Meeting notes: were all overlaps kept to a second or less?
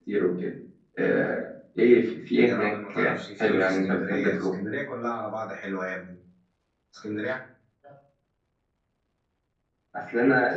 No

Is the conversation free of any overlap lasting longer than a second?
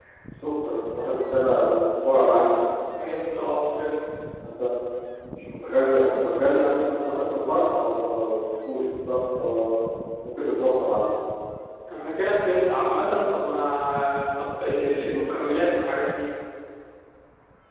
Yes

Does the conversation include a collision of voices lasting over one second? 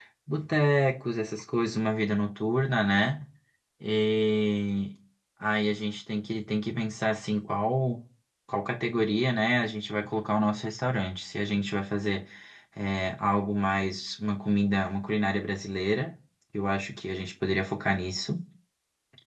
No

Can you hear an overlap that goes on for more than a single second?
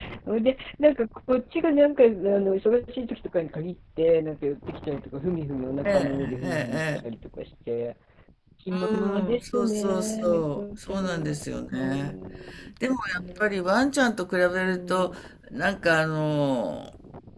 Yes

